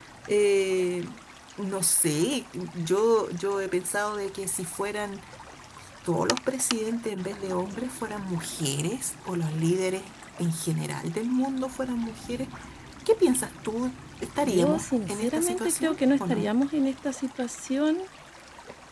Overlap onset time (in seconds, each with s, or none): 14.4 s